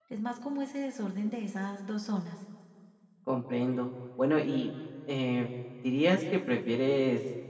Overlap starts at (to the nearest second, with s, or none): none